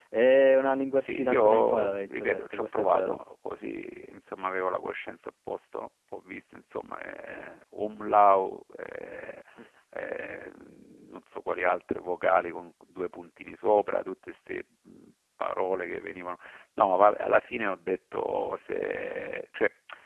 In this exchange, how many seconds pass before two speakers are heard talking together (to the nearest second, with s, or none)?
1 s